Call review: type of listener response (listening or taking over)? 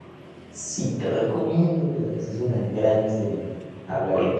listening